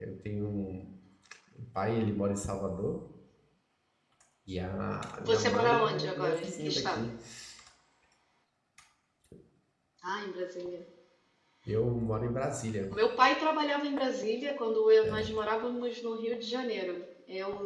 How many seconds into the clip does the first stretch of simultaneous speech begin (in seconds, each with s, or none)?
5.2 s